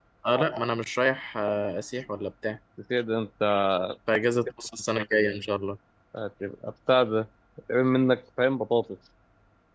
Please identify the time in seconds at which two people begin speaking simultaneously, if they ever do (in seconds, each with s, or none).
none